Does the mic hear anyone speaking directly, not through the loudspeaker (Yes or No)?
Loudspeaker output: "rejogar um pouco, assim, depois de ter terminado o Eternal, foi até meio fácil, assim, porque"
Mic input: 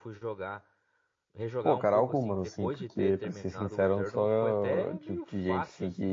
Yes